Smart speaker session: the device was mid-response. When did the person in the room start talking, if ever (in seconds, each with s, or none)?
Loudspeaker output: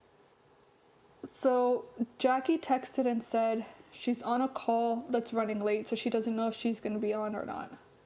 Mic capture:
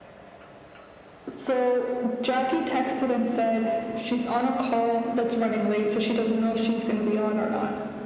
none